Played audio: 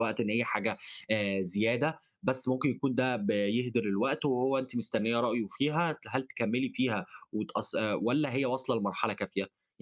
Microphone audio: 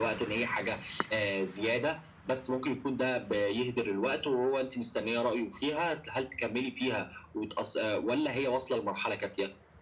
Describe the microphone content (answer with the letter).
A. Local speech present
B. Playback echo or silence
B